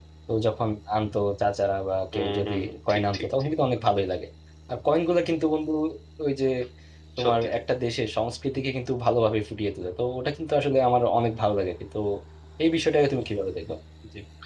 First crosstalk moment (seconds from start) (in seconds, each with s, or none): 2.1 s